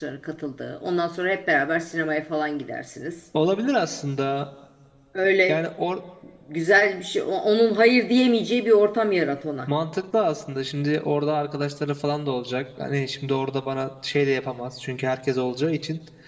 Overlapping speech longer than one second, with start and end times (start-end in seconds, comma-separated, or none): none